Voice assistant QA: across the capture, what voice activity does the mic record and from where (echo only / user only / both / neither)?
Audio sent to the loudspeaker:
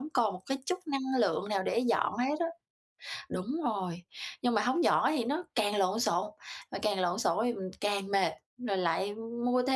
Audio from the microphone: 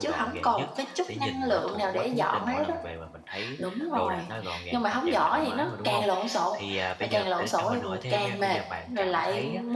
both